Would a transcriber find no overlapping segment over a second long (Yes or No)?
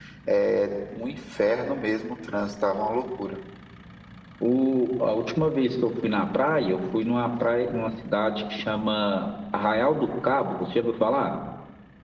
Yes